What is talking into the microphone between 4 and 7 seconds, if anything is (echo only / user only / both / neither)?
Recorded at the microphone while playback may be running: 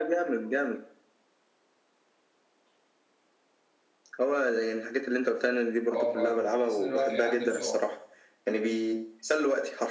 both